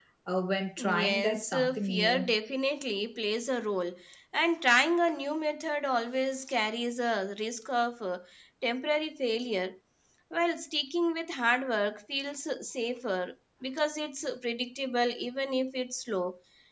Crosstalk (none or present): present